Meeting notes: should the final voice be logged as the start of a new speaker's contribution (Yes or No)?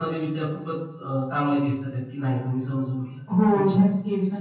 Yes